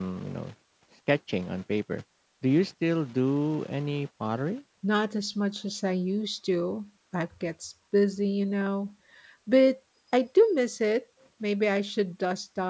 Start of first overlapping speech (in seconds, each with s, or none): none